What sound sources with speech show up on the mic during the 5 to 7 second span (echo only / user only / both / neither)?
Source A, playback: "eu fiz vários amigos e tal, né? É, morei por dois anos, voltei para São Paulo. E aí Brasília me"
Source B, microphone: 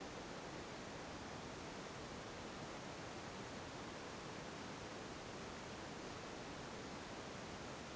neither